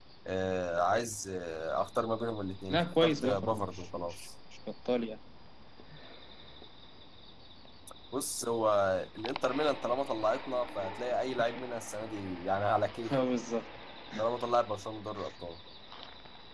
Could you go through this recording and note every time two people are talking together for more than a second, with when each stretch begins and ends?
2.7-4.2

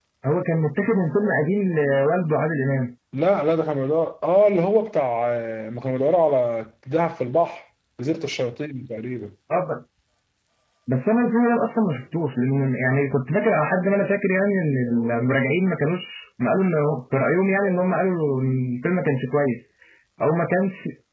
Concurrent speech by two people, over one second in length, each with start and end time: none

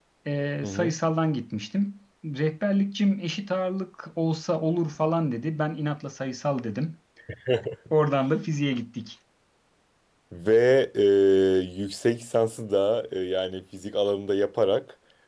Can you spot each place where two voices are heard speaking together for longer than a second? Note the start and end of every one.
none

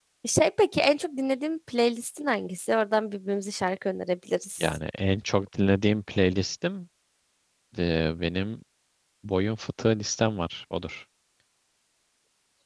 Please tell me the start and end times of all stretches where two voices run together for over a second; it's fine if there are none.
none

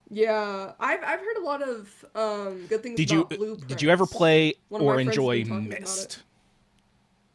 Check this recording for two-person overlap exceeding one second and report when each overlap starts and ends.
3.0-4.2, 4.8-6.1

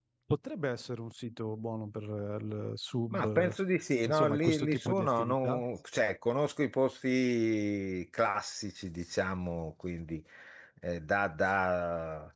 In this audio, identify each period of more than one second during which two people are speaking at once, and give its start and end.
4.0-5.6

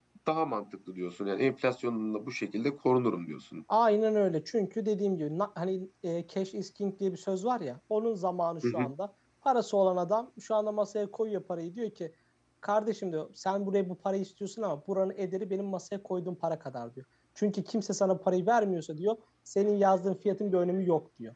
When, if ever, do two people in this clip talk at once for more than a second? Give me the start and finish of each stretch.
none

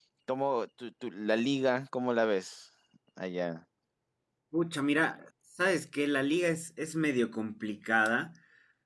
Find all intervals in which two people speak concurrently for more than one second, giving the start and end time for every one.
none

